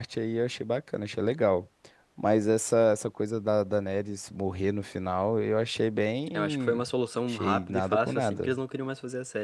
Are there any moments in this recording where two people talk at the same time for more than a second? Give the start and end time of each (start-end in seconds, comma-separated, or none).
7.3-8.5